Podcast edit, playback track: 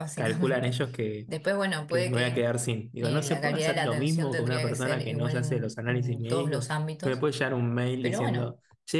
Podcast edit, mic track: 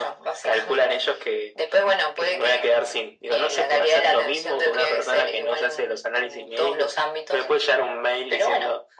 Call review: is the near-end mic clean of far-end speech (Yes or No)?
No